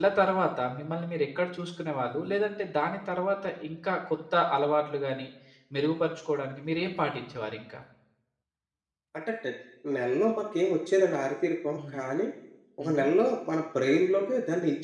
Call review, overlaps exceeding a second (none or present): none